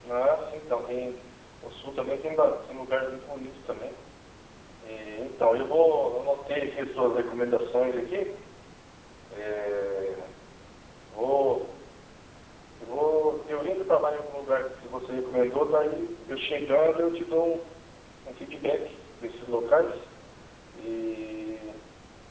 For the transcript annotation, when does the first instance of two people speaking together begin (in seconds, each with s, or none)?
none